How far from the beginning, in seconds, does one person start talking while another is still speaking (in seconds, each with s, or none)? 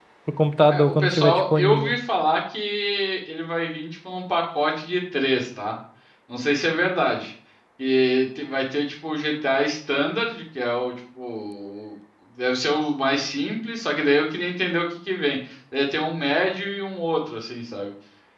0.7 s